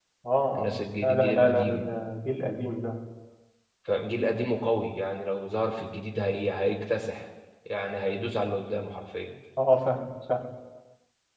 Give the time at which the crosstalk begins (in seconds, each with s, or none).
0.6 s